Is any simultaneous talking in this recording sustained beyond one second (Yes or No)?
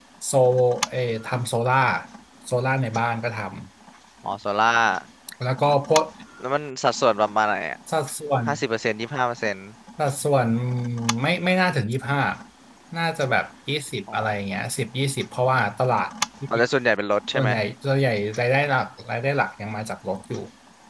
No